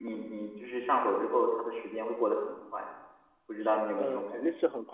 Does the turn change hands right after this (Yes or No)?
Yes